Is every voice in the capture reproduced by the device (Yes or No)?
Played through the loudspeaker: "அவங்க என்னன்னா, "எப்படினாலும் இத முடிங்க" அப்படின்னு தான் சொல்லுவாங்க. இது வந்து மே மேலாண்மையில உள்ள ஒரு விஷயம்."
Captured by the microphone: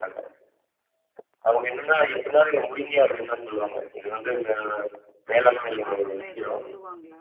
No